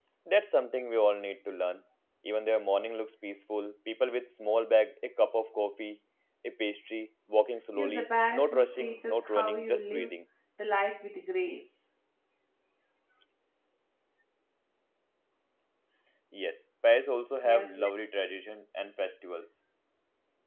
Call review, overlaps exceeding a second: present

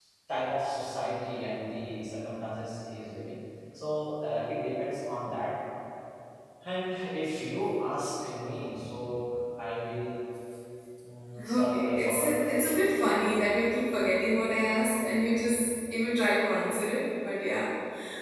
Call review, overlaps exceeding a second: present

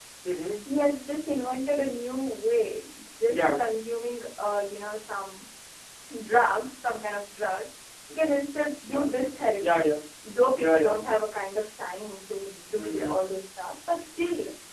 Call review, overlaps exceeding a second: none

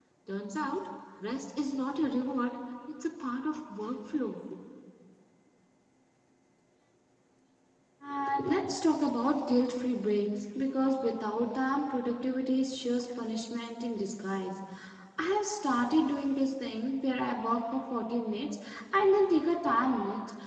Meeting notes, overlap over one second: none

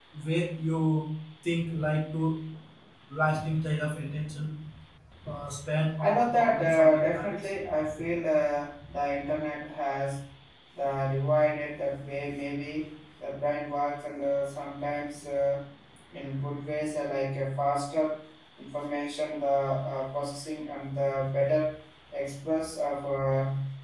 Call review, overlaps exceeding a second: present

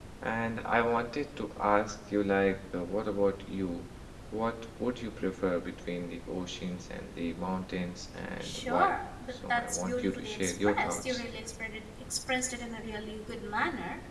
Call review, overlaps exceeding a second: present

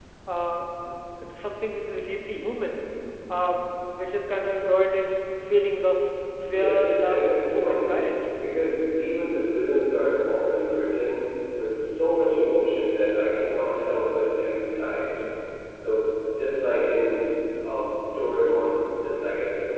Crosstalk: present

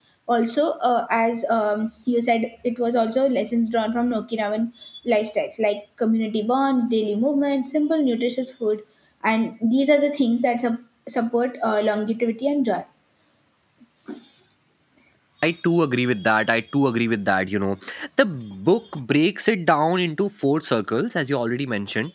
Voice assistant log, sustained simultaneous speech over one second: none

